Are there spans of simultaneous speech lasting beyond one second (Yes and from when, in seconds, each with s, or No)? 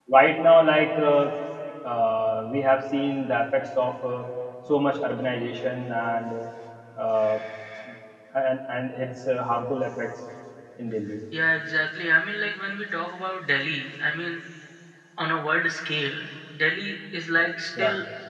No